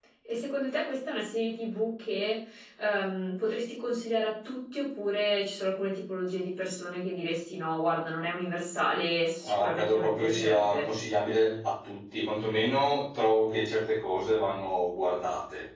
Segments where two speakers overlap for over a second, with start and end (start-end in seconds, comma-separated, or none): 9.5-10.8